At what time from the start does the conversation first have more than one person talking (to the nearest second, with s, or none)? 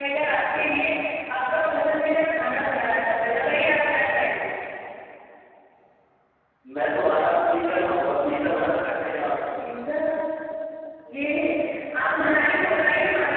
none